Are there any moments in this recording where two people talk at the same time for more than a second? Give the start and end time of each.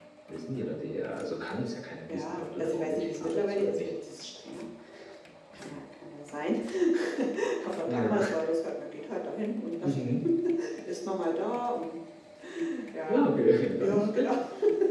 2.1-3.9

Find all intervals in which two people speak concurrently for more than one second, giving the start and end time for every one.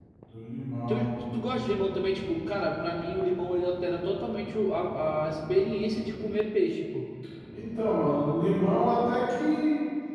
none

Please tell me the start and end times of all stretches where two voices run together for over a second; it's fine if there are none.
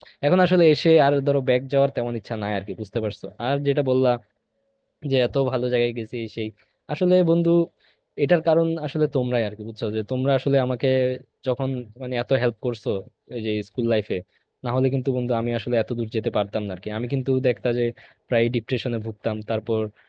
none

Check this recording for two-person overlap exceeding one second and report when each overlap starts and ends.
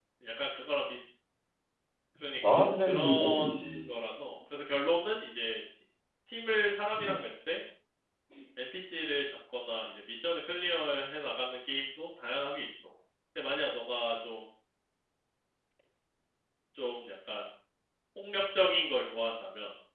2.5-3.9

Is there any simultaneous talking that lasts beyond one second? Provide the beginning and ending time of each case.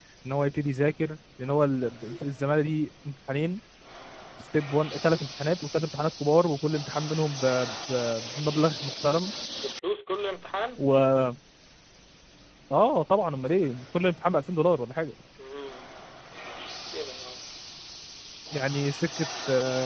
none

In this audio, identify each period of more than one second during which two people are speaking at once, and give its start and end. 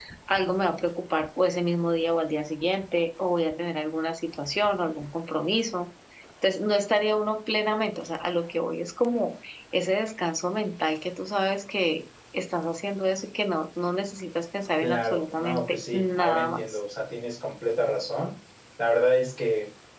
14.8-16.6

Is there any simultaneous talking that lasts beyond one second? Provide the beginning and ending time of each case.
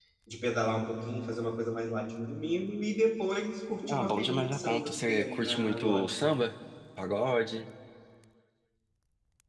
3.9-6.1

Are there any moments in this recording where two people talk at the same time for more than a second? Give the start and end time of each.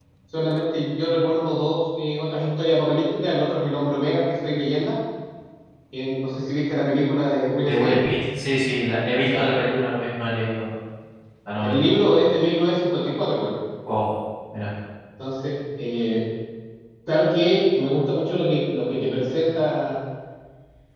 none

